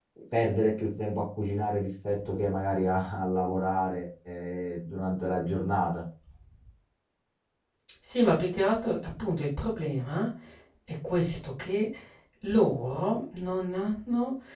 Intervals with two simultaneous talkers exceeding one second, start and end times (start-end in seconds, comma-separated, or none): none